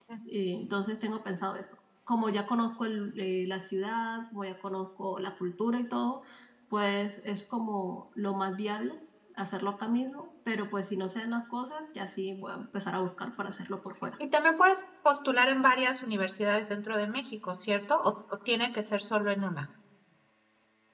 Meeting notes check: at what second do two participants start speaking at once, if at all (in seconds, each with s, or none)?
none